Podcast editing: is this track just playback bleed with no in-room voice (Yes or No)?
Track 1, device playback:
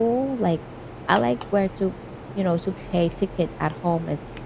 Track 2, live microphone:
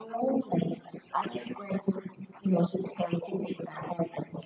Yes